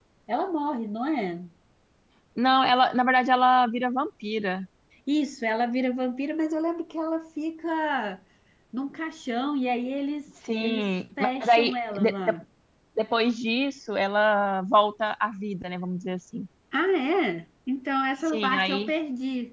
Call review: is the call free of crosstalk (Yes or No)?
No